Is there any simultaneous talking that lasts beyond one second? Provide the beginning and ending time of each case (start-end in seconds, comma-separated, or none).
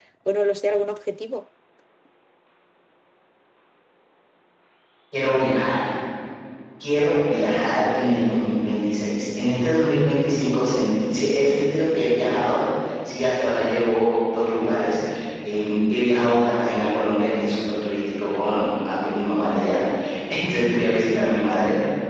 none